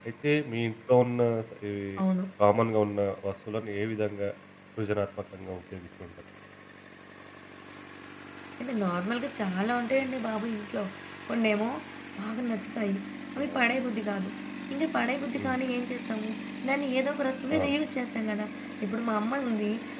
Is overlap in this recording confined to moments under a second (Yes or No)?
Yes